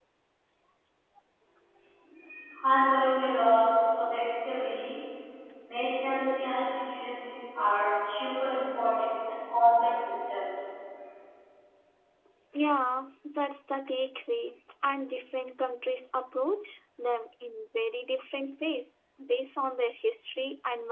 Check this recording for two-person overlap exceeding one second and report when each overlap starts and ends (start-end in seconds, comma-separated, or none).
none